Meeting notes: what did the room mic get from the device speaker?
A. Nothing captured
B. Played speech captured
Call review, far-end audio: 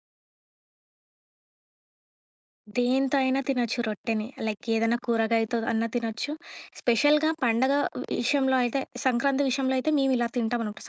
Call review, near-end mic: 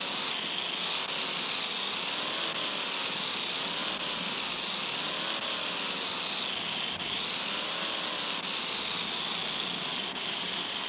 A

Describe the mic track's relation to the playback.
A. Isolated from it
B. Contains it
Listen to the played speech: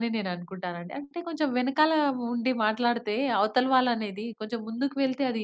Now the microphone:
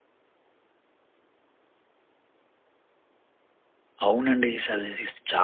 A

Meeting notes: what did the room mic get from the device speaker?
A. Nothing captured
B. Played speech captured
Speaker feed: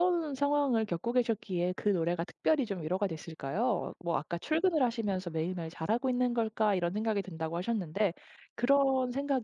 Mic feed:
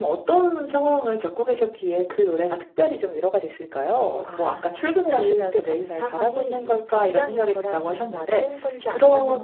B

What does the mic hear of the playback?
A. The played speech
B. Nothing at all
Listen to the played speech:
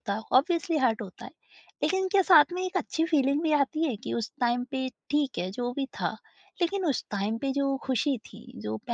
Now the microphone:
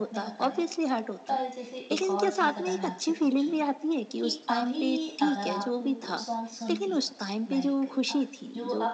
A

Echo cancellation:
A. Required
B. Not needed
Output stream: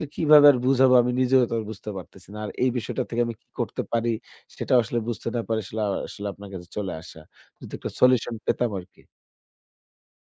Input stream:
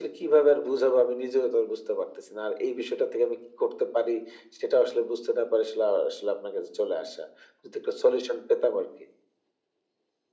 A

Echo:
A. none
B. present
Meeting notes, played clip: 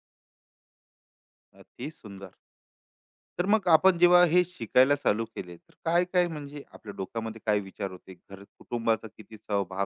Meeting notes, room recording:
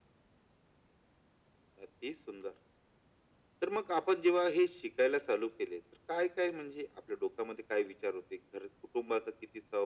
B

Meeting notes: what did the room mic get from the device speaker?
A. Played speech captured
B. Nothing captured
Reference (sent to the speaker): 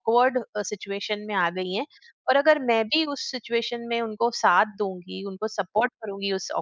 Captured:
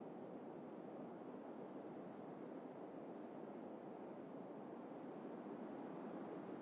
B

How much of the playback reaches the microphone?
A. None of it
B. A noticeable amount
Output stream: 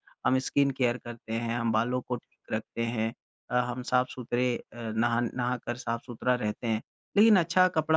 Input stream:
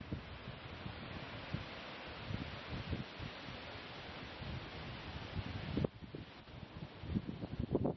A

